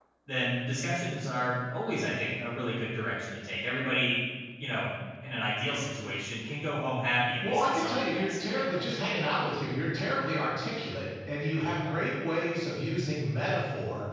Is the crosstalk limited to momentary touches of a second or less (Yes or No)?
No